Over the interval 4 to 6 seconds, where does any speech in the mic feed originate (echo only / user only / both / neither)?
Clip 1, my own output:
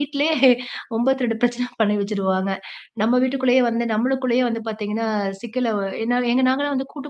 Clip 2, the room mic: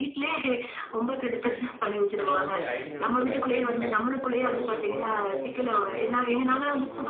both